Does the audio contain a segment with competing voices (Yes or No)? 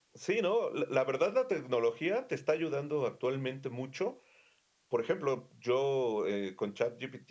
No